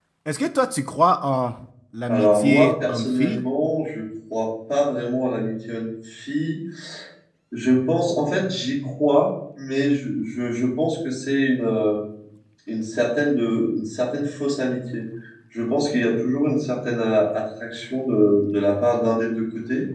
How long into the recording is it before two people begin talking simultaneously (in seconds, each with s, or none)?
2.1 s